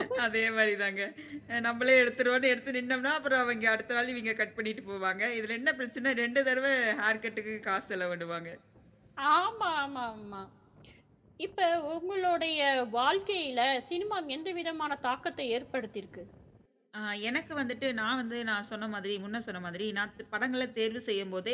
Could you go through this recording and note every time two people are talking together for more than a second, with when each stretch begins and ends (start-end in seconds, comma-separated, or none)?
none